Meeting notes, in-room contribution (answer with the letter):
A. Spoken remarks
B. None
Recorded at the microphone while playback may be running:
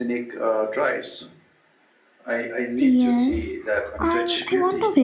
A